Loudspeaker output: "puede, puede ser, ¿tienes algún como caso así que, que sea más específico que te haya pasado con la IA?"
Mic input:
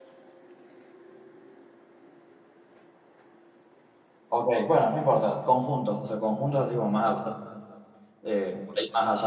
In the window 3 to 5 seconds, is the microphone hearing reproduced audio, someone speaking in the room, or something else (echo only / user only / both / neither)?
user only